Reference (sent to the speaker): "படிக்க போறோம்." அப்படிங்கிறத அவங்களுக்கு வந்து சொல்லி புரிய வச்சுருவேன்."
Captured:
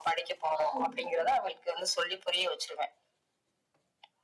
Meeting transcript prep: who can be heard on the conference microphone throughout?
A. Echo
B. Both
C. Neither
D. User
B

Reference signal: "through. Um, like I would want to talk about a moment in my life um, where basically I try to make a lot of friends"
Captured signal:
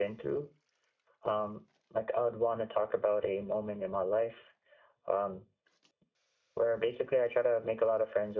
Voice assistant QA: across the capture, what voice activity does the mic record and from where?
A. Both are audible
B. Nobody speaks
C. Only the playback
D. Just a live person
C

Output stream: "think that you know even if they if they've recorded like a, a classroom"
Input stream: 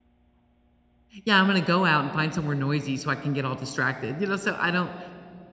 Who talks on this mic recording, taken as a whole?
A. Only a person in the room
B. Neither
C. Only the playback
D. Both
A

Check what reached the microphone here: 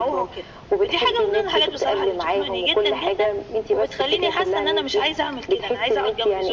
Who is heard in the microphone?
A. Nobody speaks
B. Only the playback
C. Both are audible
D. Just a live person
B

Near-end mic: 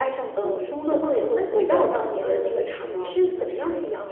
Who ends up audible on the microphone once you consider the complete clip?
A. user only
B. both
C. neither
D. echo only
B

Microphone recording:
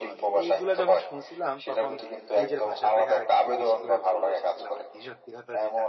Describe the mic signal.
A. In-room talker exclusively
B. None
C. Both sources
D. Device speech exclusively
C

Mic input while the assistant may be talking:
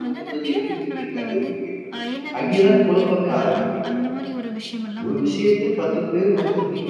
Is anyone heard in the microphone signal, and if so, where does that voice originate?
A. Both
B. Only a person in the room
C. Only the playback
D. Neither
A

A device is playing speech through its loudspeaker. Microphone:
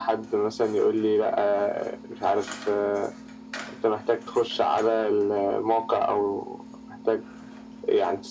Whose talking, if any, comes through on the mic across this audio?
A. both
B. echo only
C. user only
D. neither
B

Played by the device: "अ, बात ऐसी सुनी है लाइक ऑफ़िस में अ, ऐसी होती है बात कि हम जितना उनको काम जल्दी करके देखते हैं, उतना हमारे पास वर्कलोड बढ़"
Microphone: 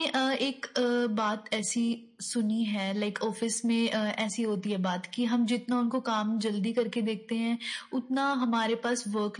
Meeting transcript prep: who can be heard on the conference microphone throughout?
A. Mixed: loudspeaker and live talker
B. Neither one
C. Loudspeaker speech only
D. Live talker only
C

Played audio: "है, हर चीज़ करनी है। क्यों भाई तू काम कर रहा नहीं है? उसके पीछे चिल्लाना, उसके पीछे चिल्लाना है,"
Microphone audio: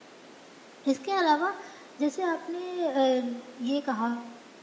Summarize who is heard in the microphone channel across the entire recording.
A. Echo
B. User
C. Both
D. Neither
B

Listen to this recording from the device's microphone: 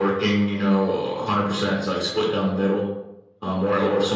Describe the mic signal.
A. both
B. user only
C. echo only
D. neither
C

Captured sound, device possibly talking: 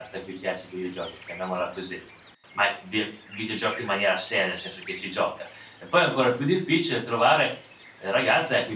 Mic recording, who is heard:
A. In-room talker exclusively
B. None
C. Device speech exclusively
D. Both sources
A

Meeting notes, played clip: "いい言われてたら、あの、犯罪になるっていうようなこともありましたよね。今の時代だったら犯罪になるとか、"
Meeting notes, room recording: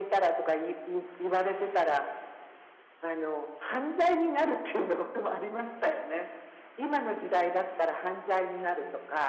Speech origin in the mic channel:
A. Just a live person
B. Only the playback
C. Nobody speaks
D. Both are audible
B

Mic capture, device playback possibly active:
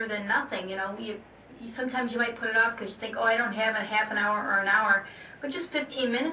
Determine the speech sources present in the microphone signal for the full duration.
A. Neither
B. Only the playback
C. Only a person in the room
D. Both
B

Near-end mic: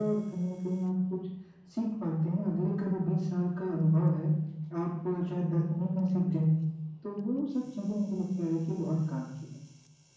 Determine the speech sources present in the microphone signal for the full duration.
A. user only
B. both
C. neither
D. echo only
D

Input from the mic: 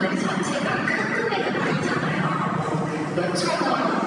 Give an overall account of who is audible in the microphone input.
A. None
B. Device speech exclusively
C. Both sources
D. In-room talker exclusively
B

